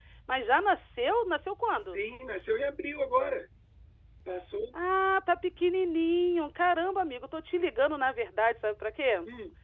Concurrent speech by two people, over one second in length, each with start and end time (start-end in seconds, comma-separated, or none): none